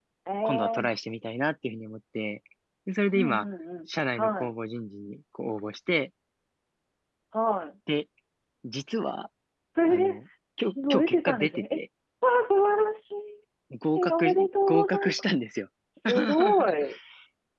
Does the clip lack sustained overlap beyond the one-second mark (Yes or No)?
No